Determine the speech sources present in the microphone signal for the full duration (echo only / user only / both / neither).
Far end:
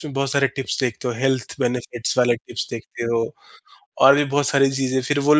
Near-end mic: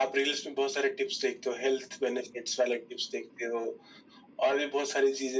echo only